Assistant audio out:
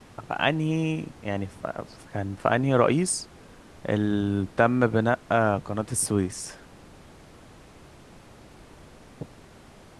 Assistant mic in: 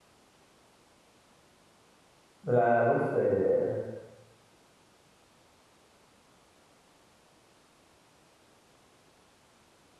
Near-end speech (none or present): present